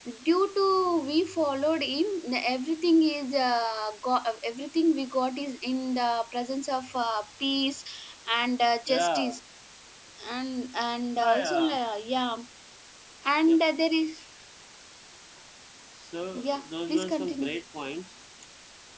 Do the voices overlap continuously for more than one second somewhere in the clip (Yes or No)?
Yes